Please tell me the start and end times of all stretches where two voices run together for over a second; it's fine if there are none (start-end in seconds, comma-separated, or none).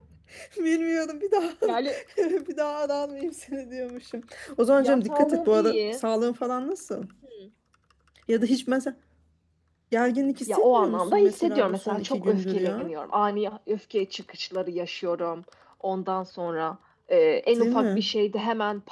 4.8-6.0, 10.5-12.9